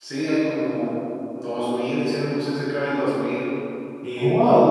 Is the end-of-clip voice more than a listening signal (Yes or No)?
Yes